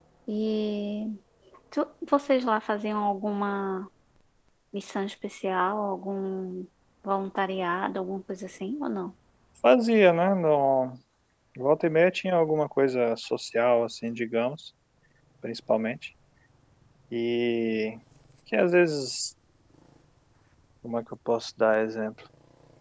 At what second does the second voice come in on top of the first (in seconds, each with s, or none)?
none